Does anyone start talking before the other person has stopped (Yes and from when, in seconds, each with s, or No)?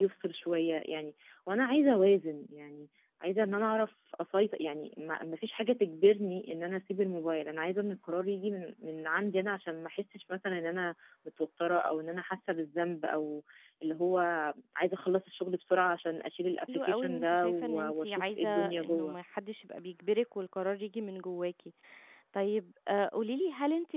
Yes, from 16.7 s